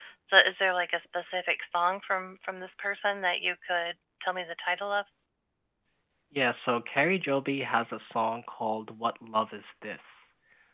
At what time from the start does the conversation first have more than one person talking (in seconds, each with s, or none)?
none